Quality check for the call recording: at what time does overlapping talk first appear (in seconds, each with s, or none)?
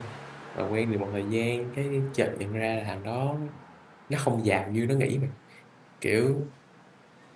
none